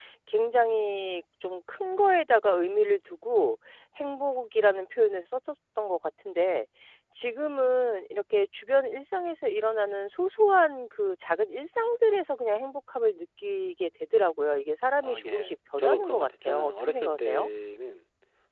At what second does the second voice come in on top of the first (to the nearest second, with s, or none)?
15 s